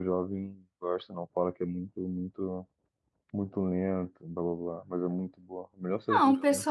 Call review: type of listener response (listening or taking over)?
taking over